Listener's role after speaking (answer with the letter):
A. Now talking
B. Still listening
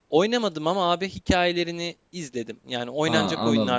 A